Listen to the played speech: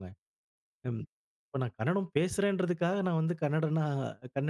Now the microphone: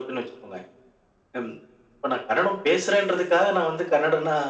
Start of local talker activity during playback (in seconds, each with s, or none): none